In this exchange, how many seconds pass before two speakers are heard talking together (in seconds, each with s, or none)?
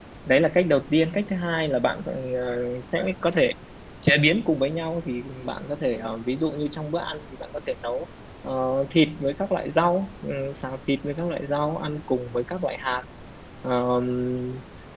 none